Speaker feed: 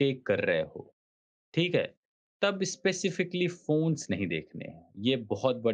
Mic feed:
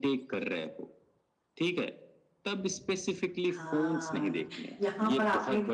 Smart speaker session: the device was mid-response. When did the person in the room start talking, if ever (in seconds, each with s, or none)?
3.5 s